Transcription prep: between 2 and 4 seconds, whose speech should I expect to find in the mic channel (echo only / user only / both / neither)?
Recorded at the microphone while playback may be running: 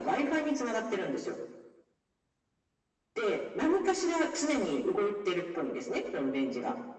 echo only